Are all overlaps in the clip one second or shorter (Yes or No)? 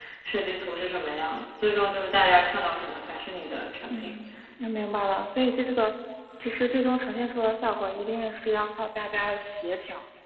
Yes